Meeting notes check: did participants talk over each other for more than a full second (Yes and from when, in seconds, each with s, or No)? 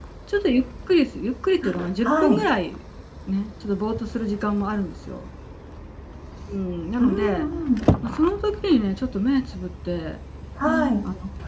No